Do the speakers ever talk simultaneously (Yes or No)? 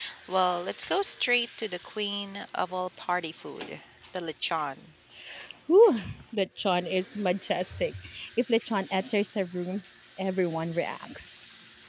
No